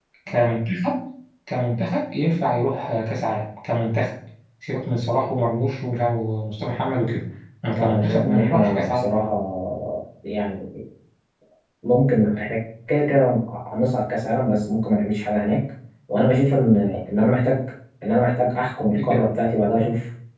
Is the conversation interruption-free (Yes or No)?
No